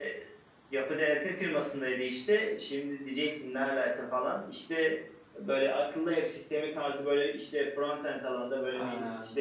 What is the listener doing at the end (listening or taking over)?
listening